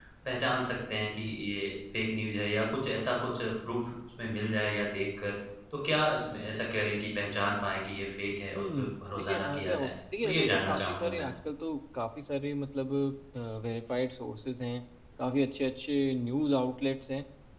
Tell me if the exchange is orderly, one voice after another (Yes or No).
No